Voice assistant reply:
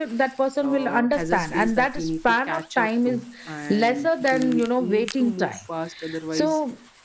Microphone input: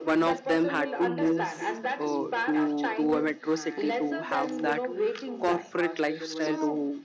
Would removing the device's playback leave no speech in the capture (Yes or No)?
No